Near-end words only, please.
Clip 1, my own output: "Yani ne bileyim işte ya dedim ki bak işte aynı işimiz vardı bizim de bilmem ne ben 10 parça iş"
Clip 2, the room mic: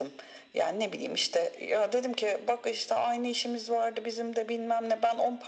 none

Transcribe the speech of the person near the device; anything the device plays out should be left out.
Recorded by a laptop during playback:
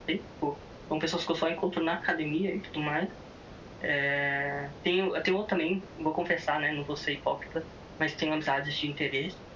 none

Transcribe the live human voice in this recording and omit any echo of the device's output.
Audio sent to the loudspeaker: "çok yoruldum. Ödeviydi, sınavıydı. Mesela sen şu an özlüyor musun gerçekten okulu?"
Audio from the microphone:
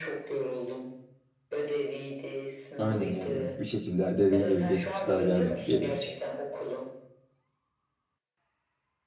Aynen yani bir şekilde dediğin gibi geçmiş daha cazip geliyor.

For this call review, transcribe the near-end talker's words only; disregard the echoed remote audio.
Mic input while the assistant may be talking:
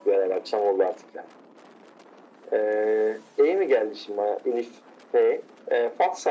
none

